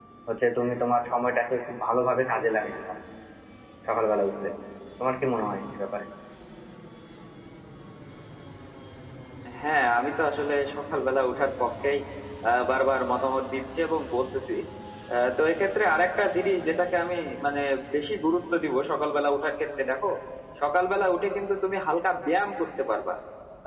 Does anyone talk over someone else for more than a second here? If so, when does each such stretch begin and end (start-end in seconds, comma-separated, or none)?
none